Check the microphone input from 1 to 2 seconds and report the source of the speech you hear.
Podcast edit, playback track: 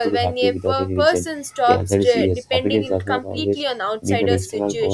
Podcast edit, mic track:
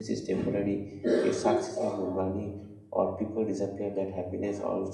user only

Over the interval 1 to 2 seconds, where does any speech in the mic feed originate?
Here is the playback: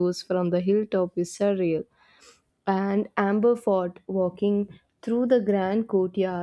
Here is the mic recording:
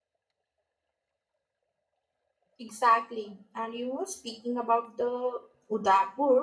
neither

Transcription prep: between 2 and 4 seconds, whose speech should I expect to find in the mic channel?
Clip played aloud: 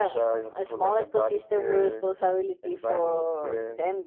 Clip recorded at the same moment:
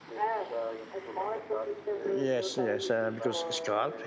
both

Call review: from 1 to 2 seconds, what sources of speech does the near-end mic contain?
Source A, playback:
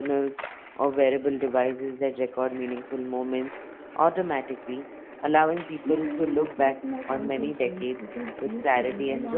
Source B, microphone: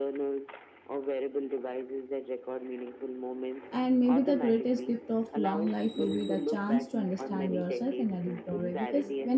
echo only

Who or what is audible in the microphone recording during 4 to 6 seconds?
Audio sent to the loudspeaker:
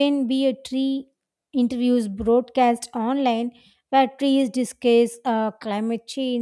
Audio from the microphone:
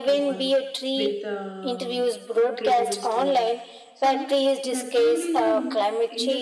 both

